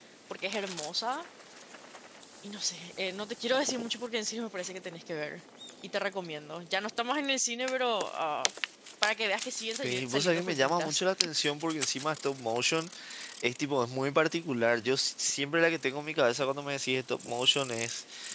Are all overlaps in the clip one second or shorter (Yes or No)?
No